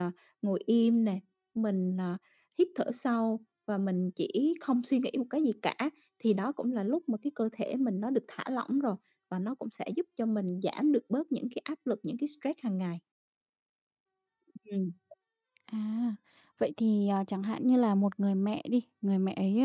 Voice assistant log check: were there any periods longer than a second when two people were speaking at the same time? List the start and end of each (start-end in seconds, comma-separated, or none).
none